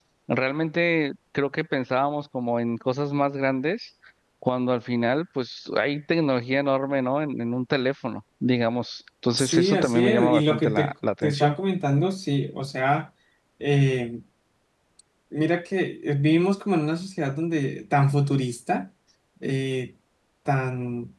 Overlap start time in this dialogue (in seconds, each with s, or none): 9.4 s